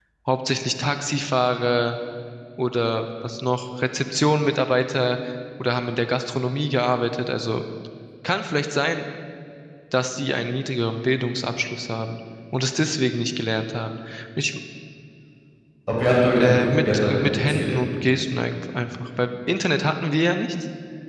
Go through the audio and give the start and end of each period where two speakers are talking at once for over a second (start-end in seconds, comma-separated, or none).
16.4-17.8